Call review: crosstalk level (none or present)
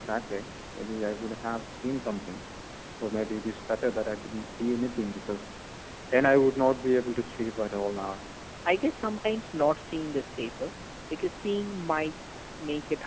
none